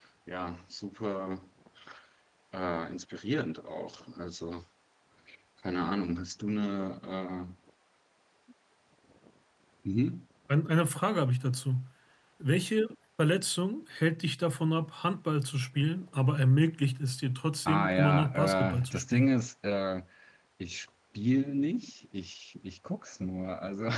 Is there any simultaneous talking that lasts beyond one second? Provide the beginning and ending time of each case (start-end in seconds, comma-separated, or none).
17.6-19.3